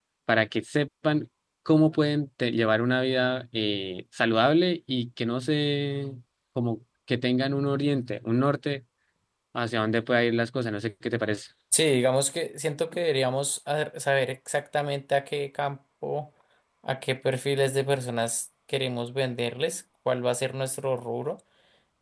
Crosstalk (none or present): none